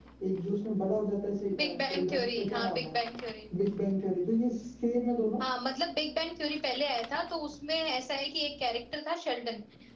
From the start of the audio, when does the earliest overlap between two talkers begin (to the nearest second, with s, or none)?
1 s